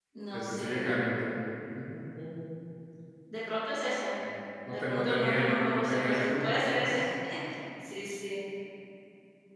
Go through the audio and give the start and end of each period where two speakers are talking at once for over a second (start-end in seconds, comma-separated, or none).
4.7-7.0